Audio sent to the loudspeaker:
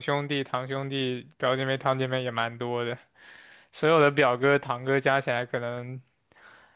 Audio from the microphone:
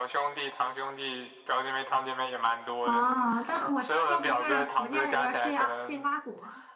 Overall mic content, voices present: both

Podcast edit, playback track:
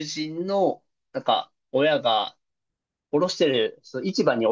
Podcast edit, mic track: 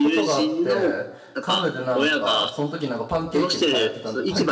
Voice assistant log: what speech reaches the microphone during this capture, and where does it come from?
both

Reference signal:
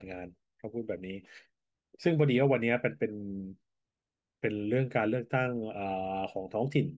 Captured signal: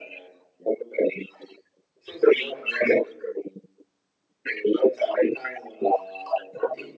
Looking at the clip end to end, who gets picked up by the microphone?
echo only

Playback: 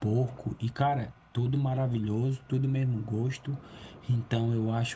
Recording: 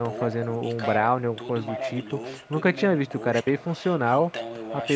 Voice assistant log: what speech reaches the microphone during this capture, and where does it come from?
both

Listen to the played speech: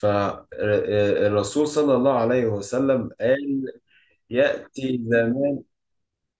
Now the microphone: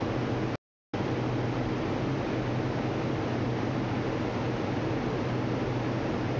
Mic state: neither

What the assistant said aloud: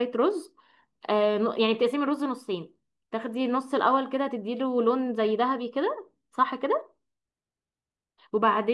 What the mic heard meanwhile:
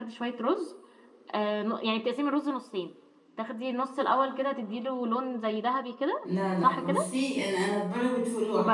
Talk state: both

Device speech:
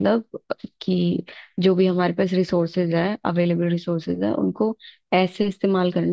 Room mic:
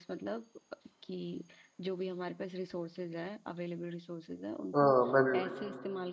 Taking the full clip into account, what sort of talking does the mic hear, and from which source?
both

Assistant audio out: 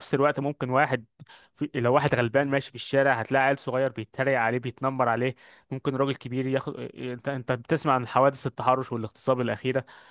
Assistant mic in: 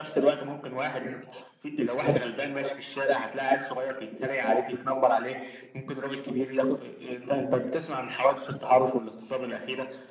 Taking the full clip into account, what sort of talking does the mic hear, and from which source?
echo only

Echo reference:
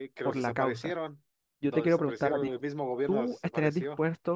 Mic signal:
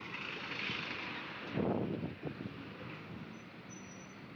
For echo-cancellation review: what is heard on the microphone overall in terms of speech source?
neither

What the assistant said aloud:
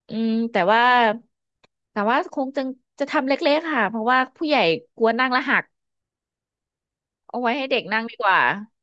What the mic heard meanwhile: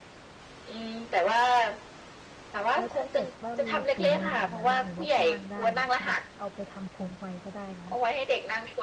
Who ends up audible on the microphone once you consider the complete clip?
both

